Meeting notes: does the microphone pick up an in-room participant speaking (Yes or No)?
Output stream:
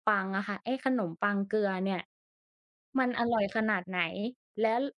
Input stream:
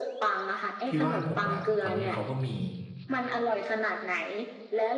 Yes